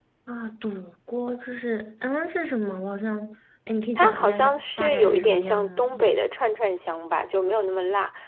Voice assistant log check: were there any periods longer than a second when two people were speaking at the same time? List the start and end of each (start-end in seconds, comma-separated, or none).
4.0-5.9